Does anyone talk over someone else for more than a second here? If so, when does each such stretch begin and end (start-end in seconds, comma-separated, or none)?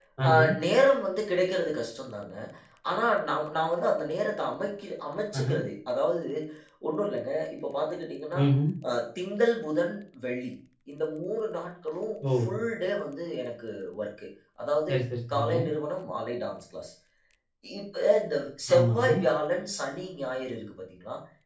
none